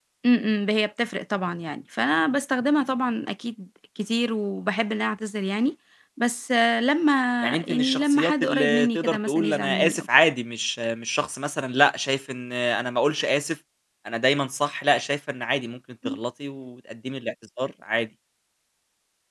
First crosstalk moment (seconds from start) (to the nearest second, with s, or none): 8 s